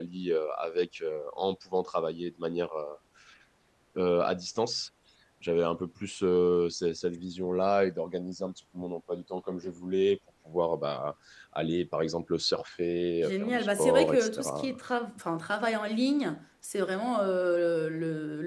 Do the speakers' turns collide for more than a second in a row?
Yes, from 13.2 s

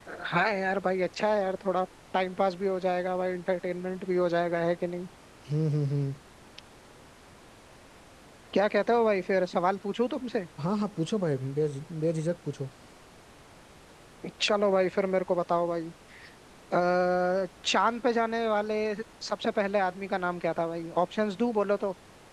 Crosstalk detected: No

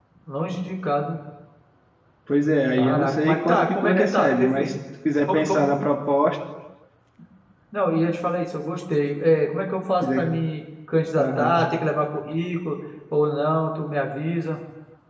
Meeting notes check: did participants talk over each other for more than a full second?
Yes, from 2.8 s

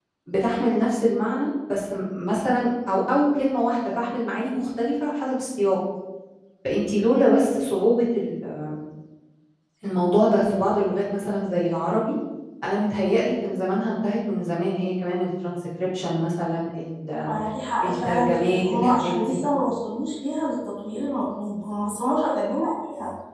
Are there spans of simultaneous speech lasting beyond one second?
Yes, from 17.8 s

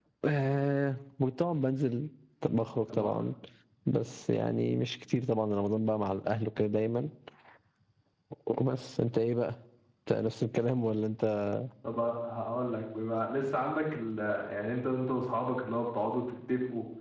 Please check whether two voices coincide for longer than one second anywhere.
No

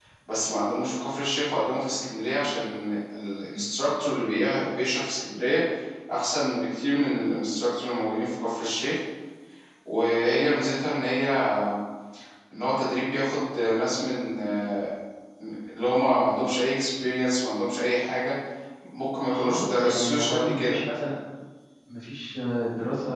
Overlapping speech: Yes, from 19.3 s

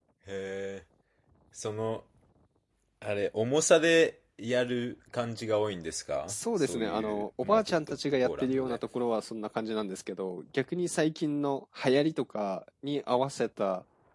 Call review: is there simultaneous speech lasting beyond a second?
Yes, from 6.3 s

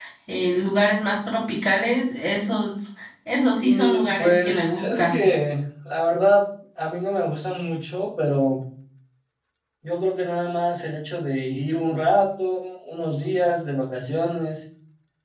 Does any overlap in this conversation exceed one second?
Yes, from 3.6 s

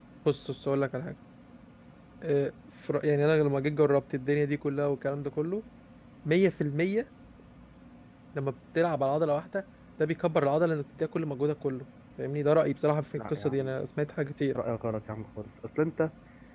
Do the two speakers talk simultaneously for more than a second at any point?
No

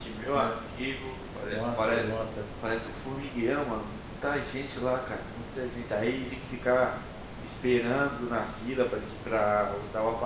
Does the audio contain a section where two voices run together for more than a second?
No

